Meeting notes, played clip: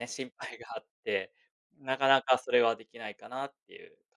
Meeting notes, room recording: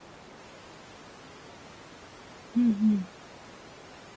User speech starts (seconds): 2.5 s

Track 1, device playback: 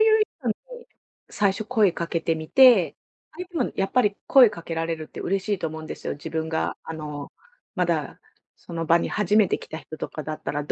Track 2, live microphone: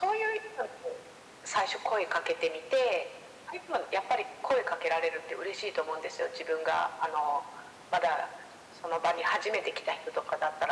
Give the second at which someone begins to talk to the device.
none

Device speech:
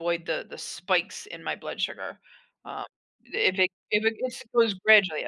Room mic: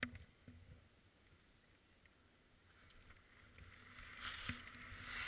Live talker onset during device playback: none

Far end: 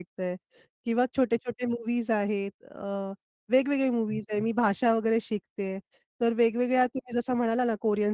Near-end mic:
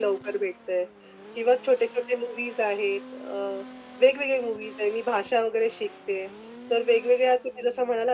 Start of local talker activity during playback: none

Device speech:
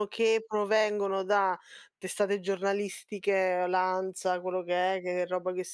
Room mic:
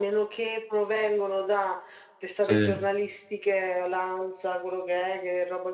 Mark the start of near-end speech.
2.4 s

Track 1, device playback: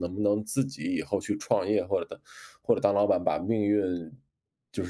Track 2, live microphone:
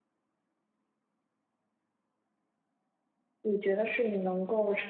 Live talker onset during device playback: 3.4 s

